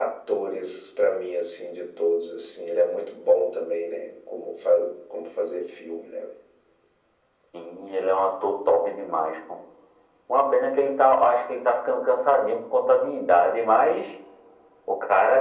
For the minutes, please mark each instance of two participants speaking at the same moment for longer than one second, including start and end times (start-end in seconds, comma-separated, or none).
none